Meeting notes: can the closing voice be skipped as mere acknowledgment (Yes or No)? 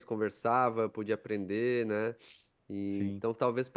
Yes